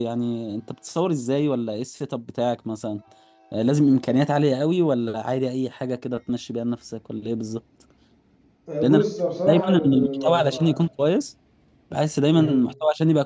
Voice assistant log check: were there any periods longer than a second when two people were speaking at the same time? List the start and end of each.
9.5-10.8

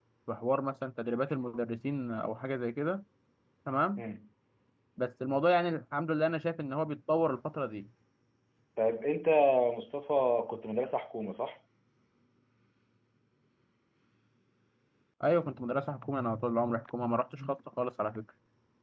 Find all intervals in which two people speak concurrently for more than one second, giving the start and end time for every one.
none

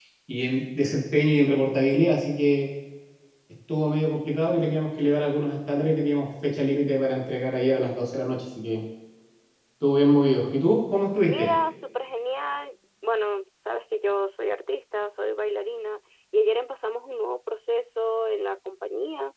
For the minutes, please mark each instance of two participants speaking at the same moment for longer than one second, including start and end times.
none

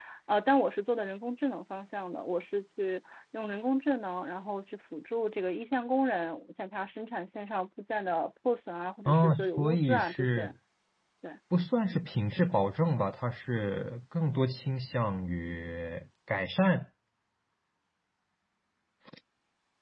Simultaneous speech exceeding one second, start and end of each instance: 9.1-10.5

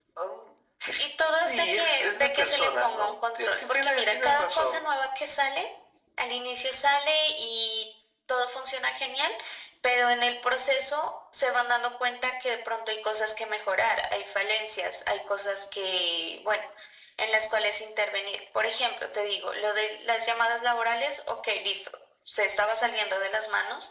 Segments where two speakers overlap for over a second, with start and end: 1.4-4.8

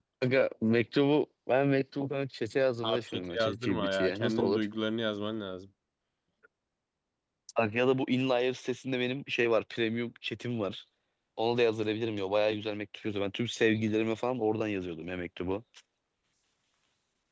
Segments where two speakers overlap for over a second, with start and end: 2.8-4.6

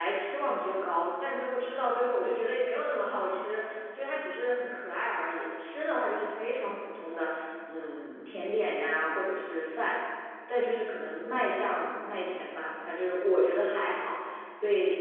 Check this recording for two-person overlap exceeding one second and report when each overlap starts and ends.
none

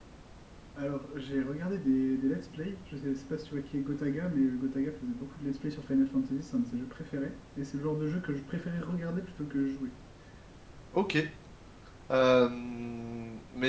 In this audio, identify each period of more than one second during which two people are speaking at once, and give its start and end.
none

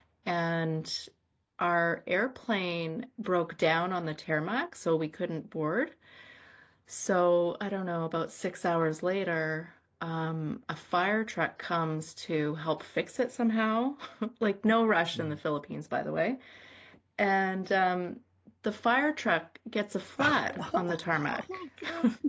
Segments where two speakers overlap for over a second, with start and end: 20.2-21.4

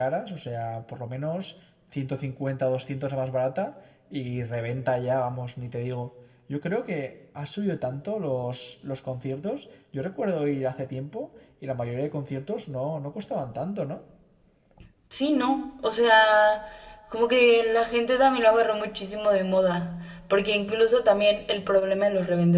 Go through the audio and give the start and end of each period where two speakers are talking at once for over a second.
none

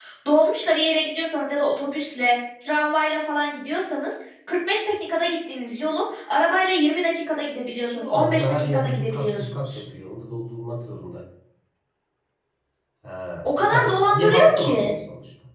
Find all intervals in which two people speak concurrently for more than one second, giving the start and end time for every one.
7.8-9.8, 13.6-14.9

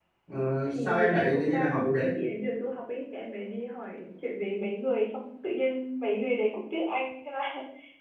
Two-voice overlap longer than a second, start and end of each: 0.7-2.1

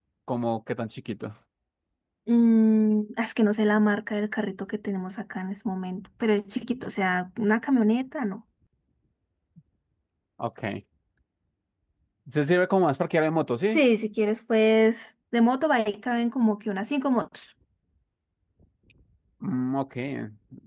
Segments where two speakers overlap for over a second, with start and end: none

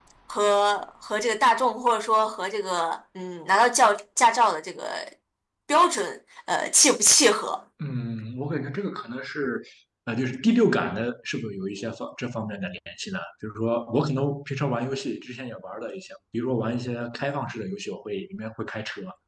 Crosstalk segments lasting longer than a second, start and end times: none

